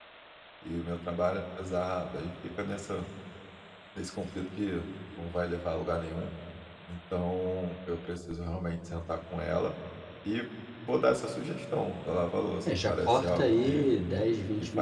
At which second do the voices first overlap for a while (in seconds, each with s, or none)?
12.7 s